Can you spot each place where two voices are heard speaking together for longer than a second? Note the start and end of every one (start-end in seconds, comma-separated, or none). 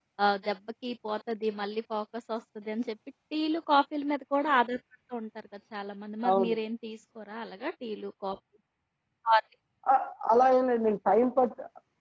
none